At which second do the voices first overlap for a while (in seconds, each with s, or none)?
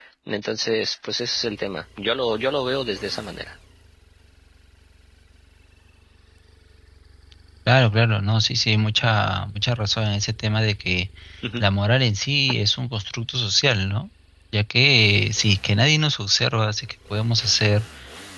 none